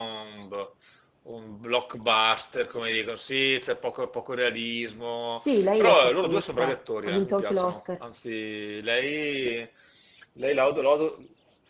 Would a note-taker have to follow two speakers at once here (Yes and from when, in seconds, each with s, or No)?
Yes, from 5.4 s